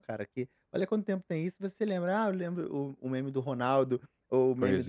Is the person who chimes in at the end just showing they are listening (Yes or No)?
Yes